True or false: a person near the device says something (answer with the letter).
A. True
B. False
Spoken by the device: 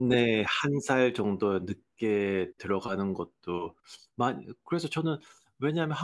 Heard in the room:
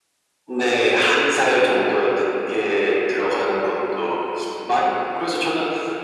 B